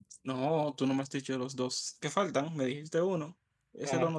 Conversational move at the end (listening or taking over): taking over